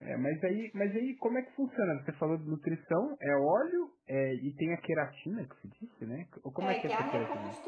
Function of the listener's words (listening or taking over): taking over